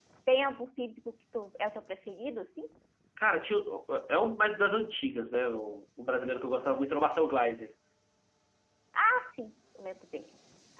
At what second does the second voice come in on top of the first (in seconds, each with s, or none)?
none